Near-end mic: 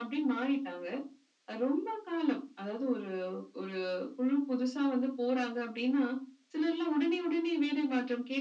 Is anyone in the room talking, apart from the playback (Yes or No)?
No